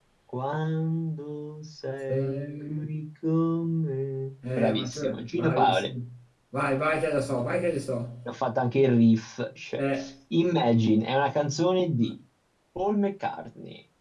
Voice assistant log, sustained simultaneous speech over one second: present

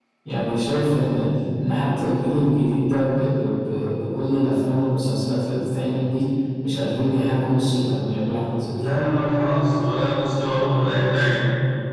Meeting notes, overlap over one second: none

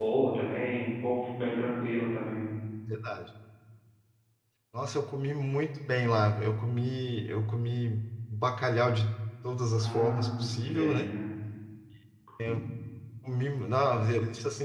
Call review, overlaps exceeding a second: present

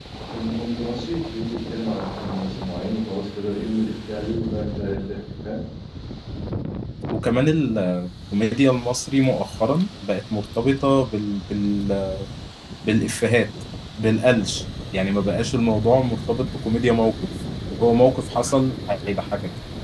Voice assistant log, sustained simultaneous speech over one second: none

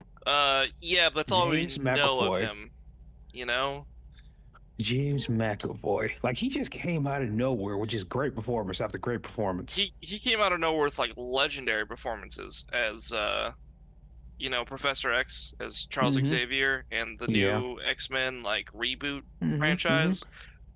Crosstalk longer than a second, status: present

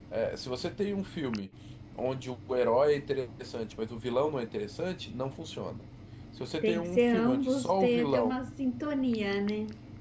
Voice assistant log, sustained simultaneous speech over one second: present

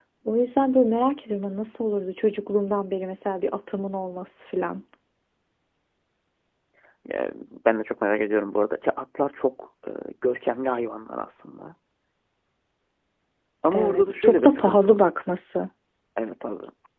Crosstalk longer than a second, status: present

